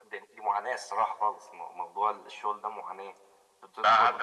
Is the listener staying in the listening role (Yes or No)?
No